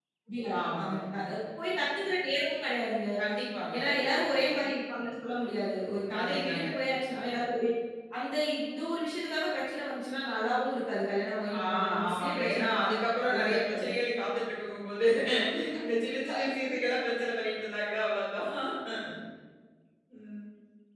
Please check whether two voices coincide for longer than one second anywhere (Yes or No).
Yes